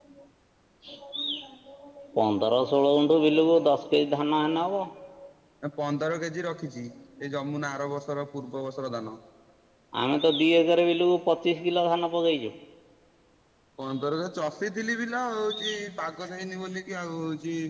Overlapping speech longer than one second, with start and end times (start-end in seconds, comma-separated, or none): none